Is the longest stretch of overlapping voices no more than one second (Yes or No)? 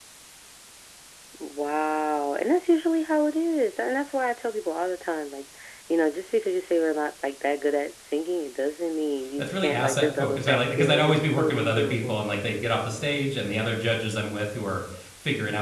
No